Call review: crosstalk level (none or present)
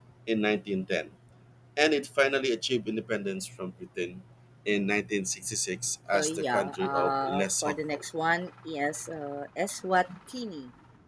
present